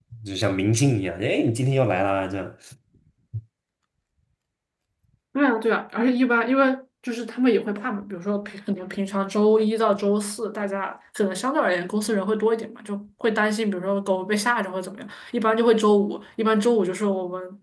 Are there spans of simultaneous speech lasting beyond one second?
No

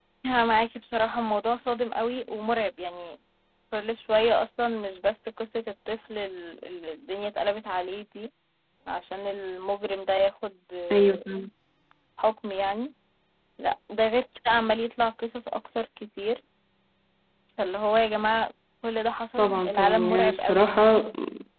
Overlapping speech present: Yes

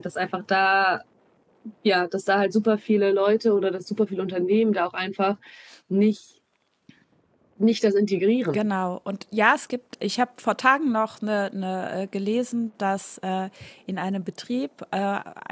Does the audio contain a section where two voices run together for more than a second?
No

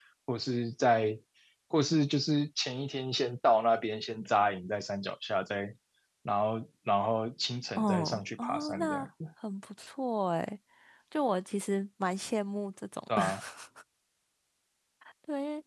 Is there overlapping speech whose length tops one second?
Yes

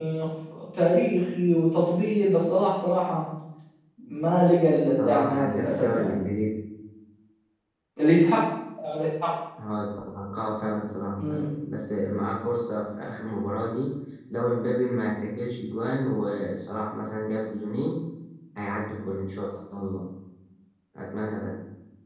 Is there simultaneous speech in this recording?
Yes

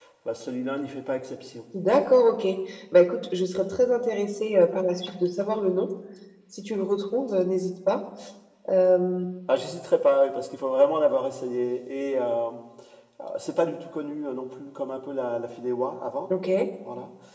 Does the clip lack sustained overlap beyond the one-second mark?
Yes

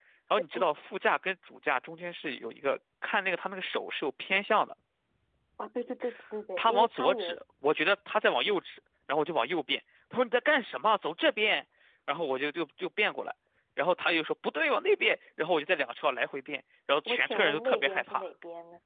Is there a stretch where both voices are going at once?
Yes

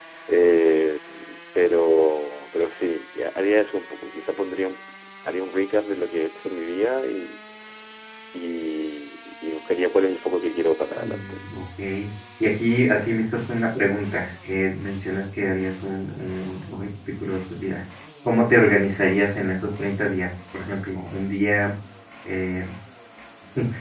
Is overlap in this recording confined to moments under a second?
Yes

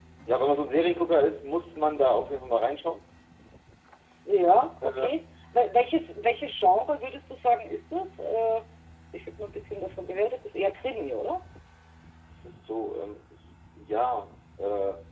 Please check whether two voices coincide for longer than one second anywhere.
No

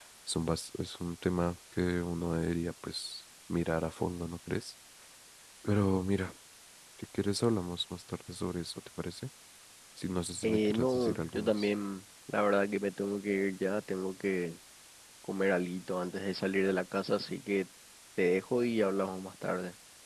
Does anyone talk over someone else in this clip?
Yes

